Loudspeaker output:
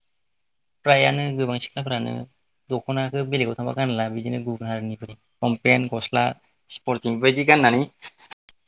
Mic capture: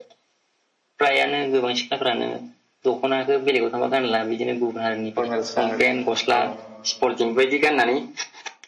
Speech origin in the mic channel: both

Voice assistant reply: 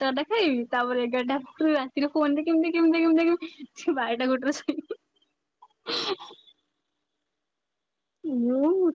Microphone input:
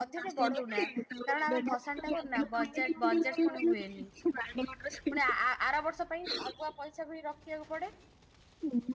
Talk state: both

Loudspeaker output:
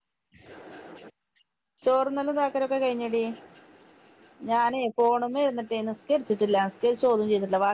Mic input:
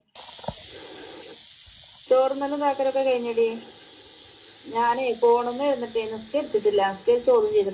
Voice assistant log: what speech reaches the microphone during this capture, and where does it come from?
echo only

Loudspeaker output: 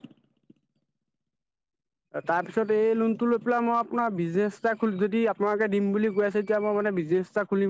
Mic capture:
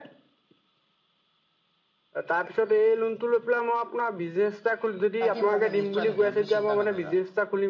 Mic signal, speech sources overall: both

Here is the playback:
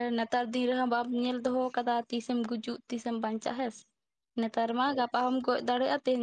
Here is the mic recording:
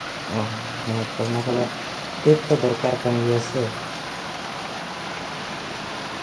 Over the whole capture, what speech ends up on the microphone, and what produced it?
user only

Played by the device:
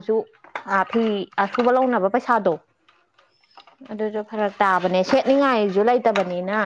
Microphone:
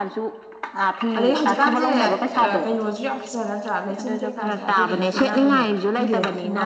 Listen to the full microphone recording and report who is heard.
both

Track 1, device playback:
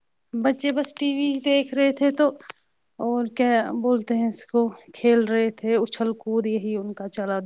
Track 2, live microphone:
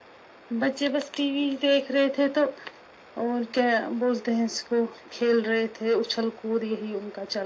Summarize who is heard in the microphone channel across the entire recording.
echo only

